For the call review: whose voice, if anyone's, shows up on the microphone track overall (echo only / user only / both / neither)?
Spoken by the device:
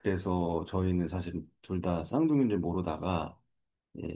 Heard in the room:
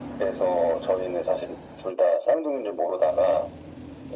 echo only